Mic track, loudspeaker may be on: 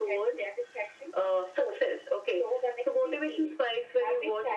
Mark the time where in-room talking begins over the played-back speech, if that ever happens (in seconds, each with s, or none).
none